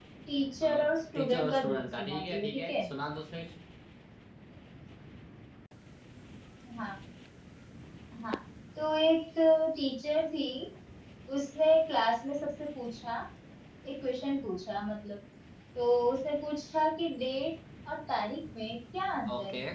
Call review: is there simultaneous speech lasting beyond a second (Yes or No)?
Yes